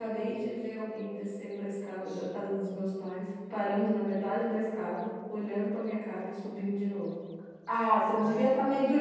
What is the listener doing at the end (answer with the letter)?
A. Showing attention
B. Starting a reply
A